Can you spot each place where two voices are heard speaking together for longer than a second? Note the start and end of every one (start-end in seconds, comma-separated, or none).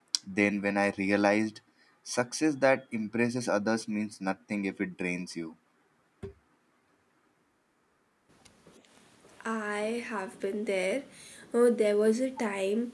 none